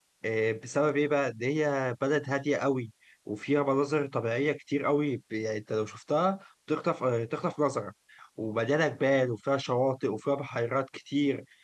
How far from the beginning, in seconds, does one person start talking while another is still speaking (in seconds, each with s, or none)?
none